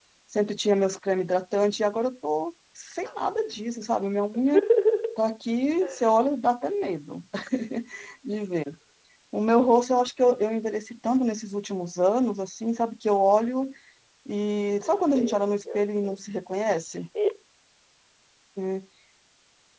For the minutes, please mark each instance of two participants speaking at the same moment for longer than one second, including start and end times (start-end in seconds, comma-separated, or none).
14.8-16.2